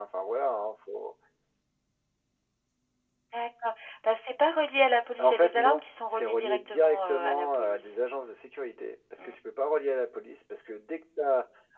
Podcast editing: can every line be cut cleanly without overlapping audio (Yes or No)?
No